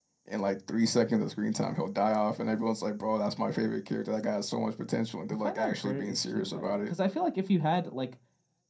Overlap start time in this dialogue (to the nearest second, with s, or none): 5 s